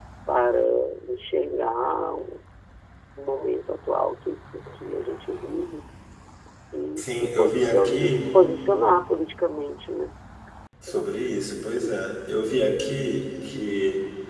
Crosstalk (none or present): present